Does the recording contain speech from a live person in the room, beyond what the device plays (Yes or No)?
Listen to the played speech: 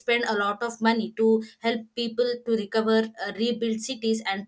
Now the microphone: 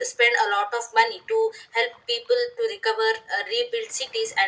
No